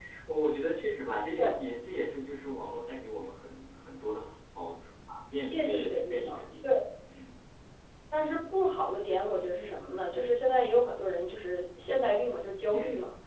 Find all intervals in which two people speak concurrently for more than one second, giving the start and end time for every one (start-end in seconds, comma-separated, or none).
5.5-6.7